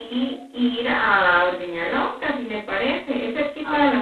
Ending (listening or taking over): listening